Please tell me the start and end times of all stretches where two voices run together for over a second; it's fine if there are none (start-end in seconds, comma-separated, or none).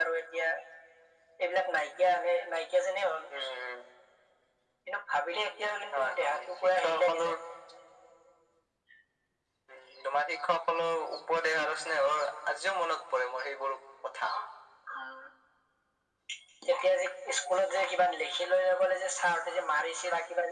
5.9-7.3